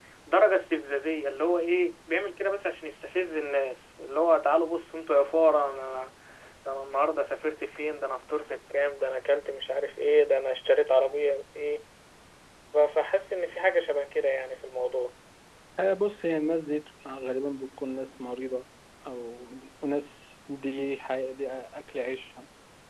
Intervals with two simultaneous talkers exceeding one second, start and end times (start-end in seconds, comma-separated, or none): none